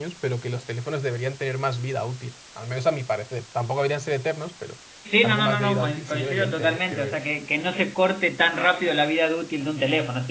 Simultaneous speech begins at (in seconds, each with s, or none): 5.2 s